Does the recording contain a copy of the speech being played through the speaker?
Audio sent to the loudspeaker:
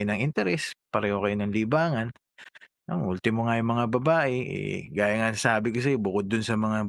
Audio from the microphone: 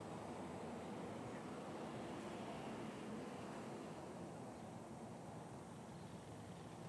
No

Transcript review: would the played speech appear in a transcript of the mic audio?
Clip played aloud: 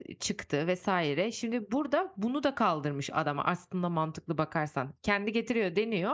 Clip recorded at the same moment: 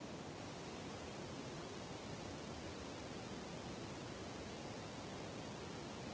No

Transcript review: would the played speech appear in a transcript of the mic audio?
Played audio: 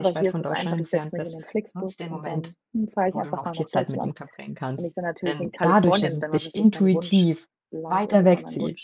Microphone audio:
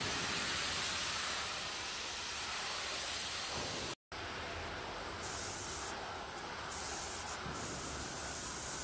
No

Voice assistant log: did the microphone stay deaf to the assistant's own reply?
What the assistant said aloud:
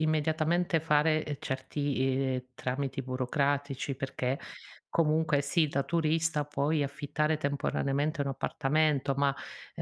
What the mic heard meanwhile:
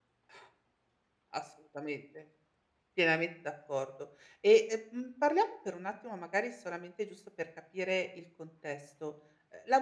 Yes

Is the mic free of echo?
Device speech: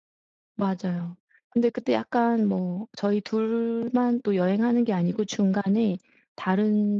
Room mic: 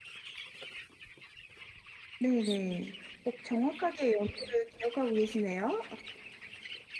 Yes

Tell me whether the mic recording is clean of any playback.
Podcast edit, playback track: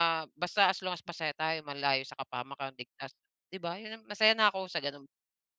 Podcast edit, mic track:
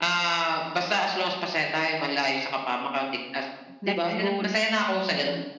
No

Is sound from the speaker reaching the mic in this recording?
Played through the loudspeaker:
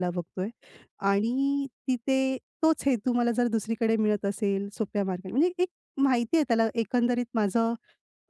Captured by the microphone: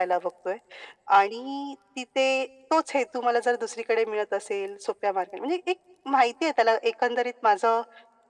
Yes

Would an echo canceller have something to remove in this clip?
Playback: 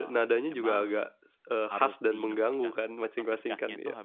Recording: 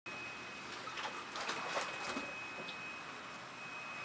No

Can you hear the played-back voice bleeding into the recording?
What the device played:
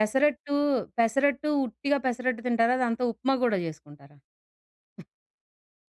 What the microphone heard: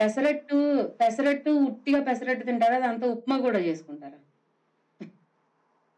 Yes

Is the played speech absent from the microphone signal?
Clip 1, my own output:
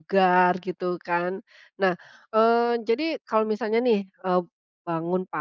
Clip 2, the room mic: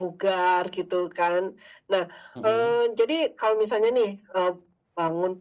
No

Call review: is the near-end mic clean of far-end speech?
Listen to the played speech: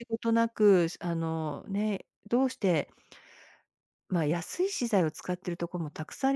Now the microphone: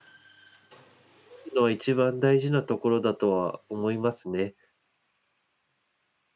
Yes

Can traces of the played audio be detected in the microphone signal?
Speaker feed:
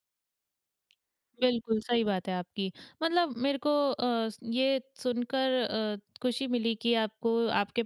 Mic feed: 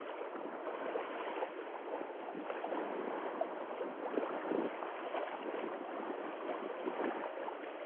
No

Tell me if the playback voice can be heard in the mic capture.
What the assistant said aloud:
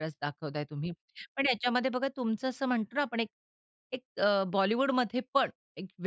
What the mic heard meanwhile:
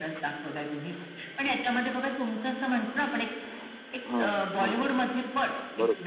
Yes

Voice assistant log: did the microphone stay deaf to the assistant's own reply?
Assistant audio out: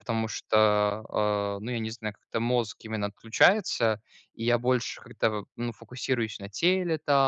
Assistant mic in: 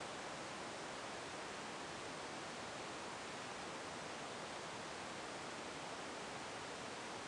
Yes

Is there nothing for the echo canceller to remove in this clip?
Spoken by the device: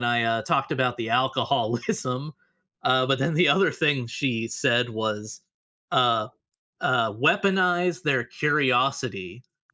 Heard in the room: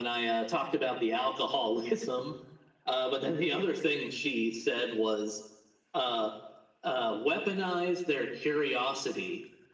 No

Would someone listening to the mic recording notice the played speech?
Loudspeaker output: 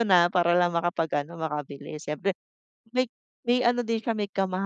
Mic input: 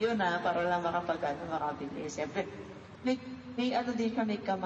Yes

